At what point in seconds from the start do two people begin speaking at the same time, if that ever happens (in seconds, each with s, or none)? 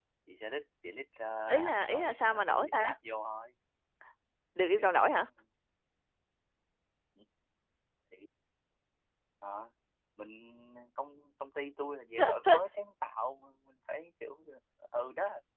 1.5 s